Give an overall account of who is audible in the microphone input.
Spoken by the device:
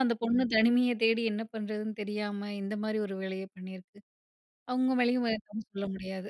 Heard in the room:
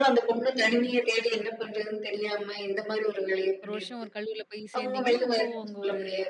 both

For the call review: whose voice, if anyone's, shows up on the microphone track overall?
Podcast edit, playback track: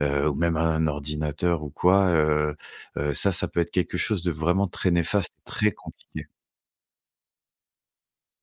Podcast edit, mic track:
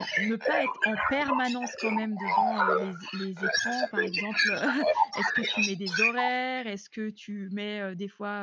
both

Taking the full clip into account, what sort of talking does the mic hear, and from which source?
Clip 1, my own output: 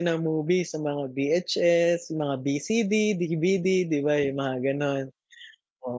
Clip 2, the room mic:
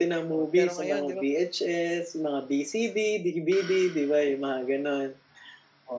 both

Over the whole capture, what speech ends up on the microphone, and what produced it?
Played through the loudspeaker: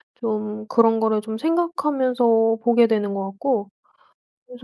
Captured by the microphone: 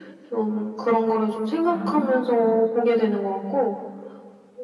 both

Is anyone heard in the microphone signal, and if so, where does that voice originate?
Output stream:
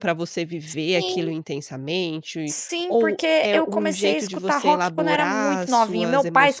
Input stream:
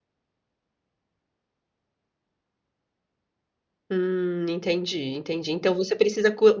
user only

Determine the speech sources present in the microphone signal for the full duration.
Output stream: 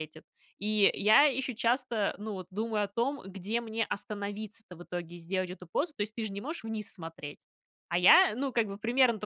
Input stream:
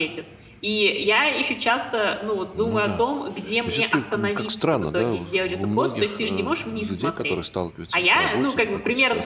both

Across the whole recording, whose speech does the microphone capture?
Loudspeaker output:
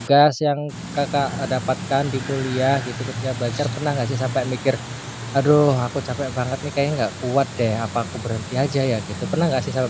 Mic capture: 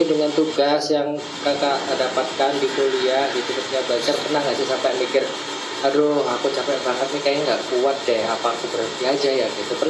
echo only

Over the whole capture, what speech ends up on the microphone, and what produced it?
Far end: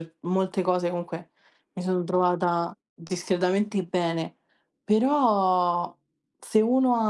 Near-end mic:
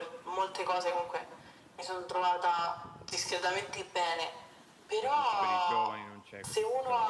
both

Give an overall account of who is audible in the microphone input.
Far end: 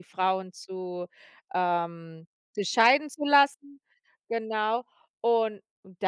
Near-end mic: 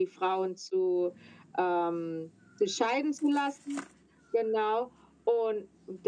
echo only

